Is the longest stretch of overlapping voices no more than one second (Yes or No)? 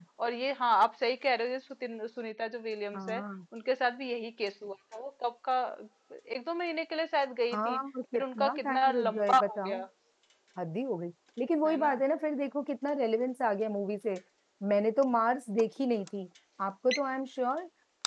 No